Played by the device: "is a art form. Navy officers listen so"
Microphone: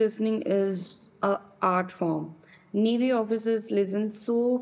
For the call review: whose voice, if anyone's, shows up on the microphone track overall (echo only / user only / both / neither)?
echo only